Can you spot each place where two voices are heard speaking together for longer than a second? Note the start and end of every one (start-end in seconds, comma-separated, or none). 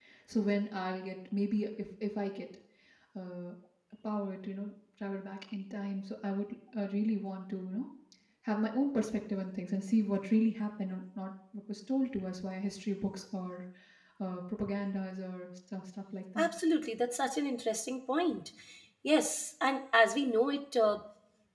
none